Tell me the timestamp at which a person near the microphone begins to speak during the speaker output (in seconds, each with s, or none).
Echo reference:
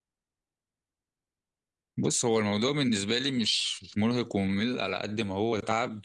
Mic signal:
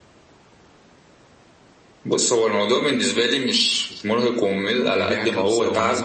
4.8 s